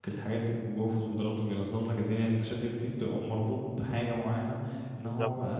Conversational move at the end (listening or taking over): listening